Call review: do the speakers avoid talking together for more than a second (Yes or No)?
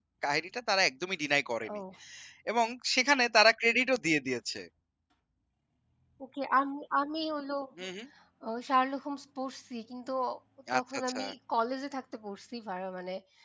Yes